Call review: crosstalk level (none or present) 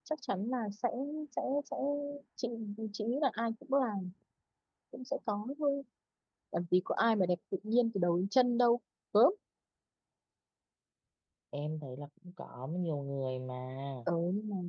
none